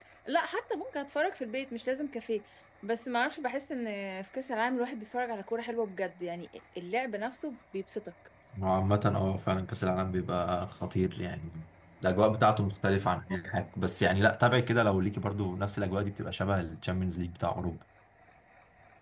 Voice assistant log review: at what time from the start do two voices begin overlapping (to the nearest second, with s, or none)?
none